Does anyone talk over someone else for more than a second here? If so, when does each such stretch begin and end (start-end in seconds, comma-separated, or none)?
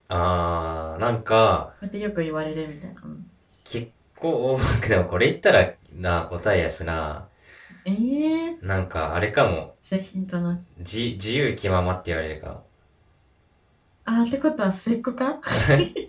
none